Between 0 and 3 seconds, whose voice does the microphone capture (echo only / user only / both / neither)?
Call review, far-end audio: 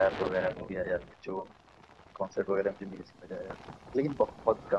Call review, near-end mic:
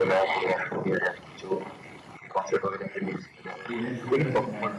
echo only